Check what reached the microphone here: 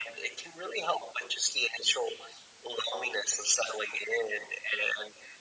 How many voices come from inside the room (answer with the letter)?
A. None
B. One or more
A